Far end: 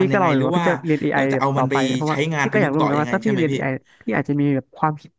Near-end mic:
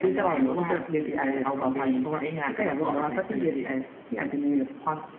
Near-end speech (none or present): none